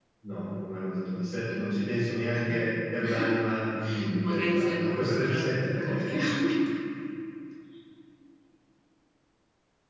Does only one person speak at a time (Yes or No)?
No